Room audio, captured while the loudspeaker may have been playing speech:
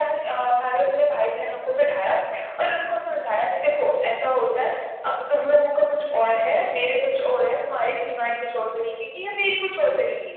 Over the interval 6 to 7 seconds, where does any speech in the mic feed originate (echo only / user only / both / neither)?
echo only